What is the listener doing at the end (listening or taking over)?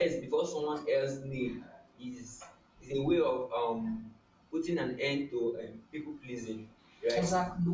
listening